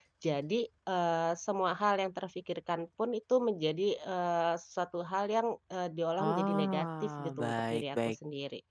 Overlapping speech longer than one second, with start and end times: 6.2-8.2

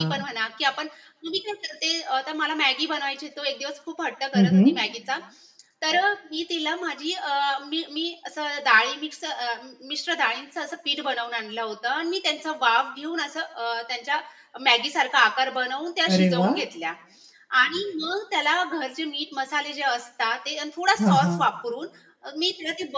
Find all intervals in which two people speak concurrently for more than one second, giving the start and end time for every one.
none

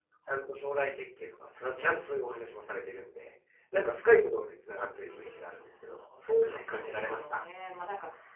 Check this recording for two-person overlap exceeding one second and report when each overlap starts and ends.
6.2-7.4

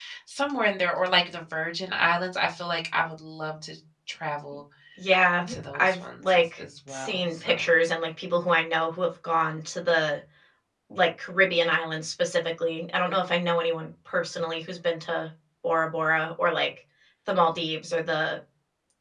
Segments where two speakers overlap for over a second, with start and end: 5.5-7.7

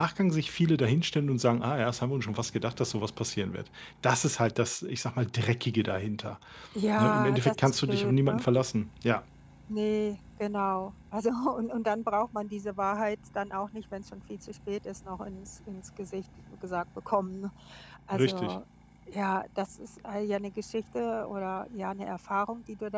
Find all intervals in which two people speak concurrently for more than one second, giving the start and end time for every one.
7.0-8.4

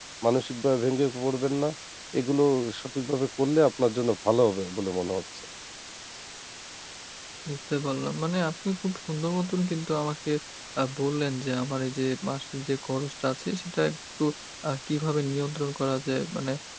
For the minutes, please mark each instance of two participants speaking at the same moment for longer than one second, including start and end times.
none

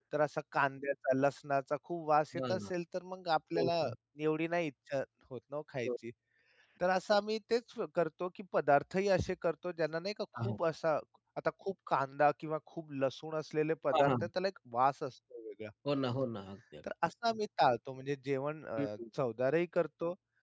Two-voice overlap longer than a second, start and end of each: none

